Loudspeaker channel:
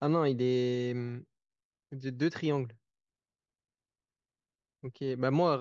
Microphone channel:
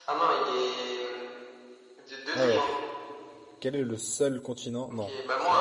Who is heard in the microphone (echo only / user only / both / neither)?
both